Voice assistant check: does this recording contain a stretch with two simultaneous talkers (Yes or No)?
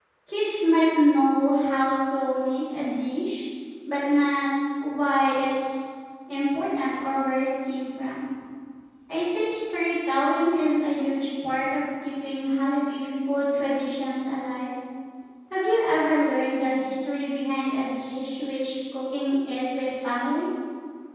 No